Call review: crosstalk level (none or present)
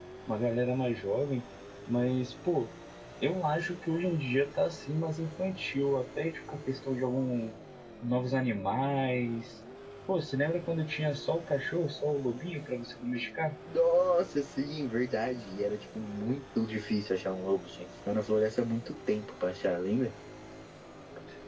none